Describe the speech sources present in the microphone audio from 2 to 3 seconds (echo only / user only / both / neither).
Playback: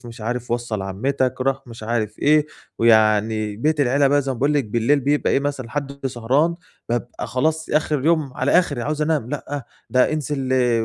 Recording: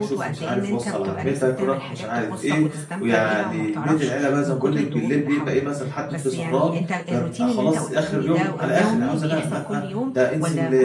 both